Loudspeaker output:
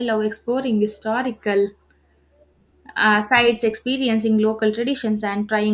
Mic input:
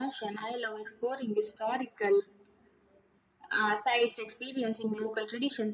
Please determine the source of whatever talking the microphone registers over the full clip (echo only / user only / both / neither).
echo only